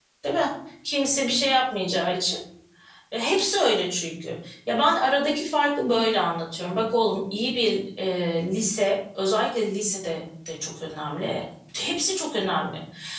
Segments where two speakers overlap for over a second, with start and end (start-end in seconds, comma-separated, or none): none